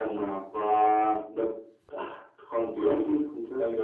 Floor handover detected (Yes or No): Yes